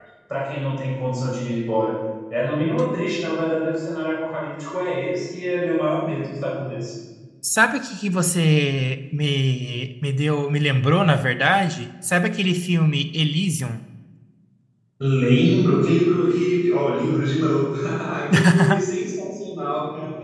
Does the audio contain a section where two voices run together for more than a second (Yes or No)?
No